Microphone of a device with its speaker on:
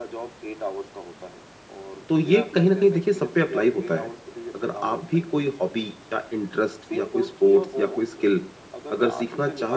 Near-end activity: present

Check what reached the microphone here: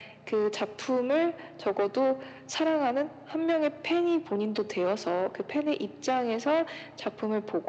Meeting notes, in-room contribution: none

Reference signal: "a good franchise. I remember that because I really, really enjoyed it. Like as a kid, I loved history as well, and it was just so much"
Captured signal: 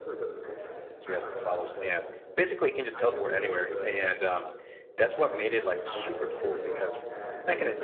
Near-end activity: present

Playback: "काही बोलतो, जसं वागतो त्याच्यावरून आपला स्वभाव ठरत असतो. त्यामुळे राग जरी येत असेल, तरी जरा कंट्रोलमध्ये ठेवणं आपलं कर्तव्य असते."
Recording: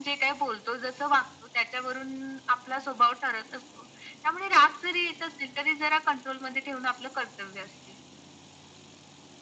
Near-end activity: none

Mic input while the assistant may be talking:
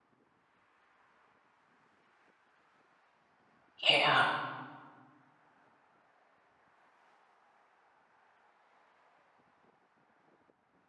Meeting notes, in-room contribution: present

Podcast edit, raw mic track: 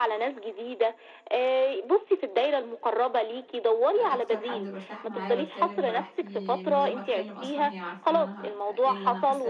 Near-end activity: present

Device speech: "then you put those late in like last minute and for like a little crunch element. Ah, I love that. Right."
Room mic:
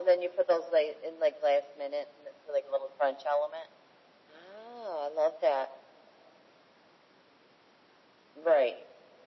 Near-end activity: none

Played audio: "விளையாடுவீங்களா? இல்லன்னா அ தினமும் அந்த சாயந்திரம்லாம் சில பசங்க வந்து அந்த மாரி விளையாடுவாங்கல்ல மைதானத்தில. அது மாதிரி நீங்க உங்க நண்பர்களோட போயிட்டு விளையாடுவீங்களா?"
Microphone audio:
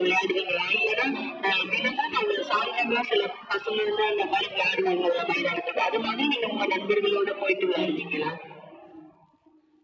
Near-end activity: present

